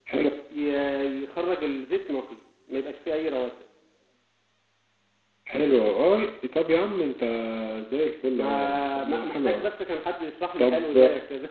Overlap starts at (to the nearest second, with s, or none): 8 s